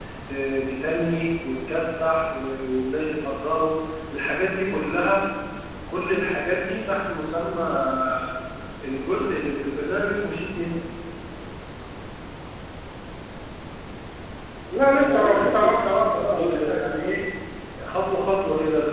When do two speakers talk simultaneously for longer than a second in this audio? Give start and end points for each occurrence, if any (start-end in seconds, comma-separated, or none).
15.0-16.8